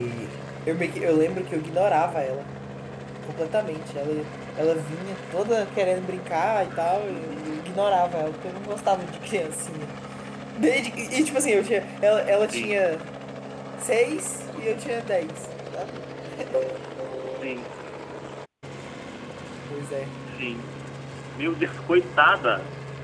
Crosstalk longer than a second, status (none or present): none